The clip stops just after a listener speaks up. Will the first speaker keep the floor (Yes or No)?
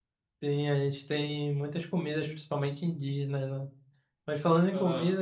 Yes